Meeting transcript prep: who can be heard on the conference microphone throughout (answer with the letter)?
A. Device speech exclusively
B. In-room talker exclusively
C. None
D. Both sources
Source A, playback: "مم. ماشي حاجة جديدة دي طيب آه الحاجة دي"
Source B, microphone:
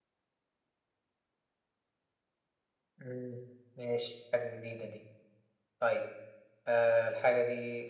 A